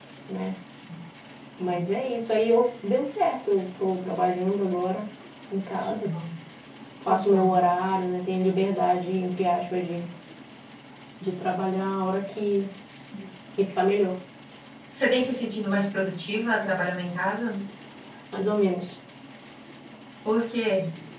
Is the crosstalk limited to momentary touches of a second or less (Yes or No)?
Yes